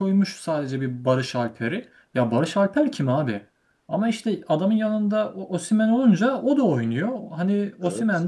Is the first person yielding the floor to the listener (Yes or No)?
No